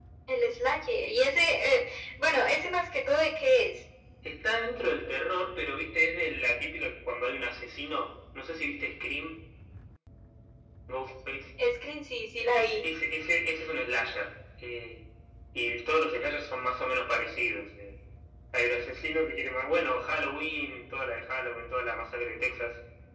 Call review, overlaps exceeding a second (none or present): none